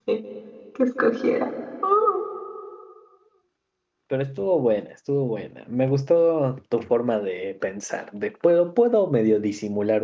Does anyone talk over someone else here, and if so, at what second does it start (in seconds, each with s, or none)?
none